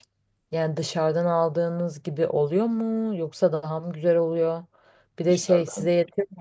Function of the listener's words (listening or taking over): listening